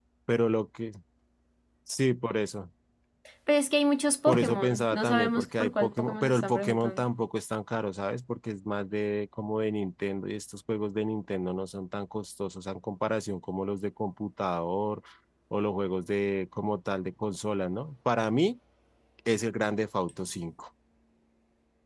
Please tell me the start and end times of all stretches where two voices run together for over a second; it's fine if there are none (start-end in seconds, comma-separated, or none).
4.3-7.0